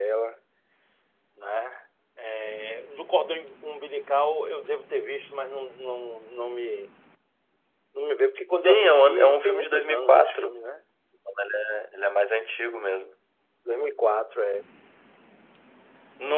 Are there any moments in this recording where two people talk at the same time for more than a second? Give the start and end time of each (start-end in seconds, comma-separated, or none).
8.6-10.5